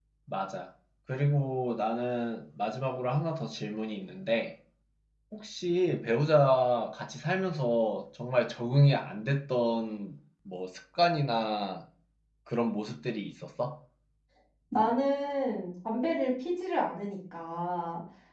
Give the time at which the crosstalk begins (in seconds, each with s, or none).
none